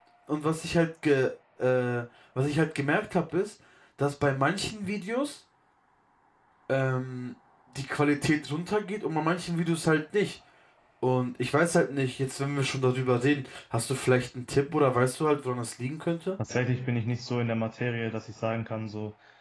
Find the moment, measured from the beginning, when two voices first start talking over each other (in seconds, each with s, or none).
none